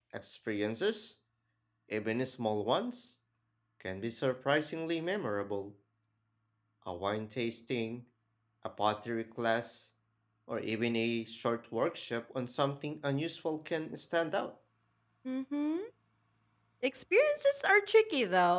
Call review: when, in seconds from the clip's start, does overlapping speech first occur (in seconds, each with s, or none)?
none